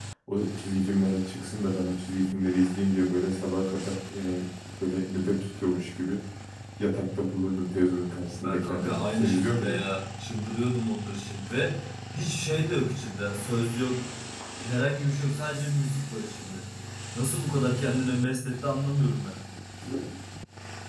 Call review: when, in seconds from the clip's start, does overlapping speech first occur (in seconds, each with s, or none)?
8.4 s